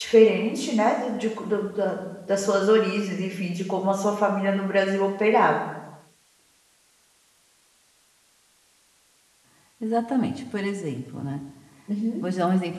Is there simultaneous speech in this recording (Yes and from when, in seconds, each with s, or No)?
No